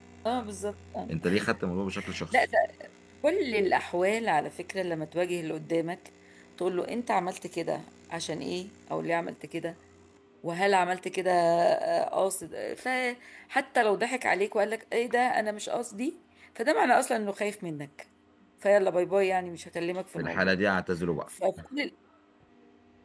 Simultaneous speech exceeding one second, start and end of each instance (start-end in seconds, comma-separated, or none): none